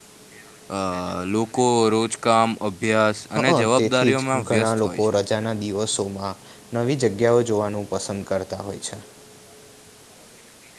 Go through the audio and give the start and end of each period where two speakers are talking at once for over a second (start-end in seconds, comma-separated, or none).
3.4-5.2